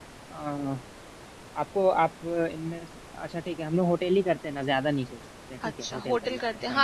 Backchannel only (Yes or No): No